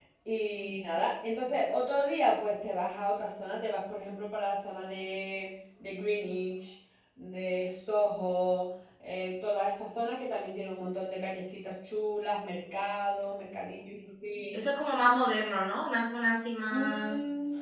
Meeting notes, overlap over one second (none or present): none